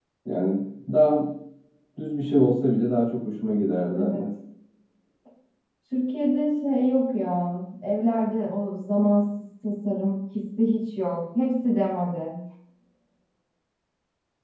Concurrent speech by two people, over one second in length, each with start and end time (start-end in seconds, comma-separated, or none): none